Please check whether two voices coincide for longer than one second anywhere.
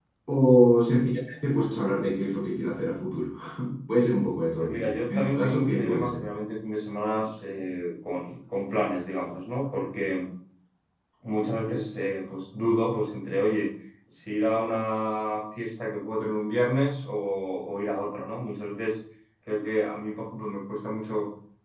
Yes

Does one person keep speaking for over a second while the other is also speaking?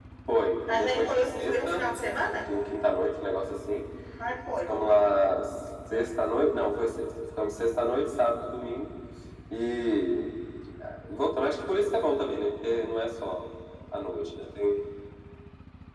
Yes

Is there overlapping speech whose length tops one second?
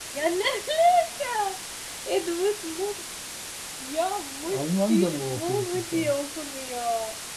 Yes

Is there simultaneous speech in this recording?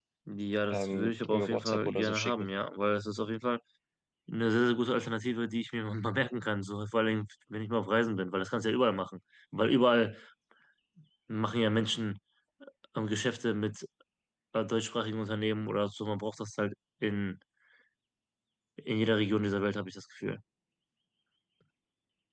Yes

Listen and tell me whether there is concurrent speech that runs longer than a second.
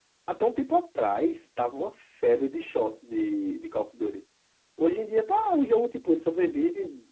No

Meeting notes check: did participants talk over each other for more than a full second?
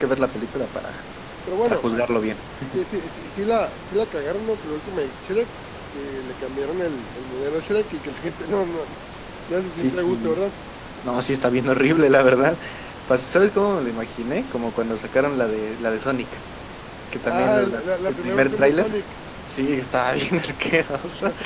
Yes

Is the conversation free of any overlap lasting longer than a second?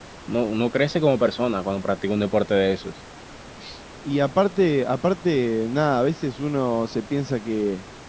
Yes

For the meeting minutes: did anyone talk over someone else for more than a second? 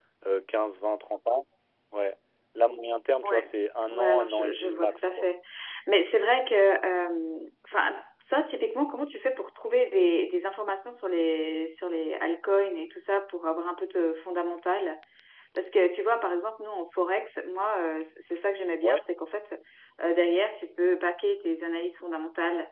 Yes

